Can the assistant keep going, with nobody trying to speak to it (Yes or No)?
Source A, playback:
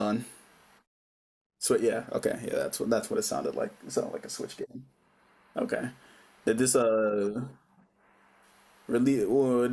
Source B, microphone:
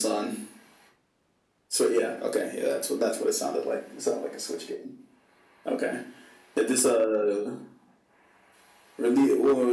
Yes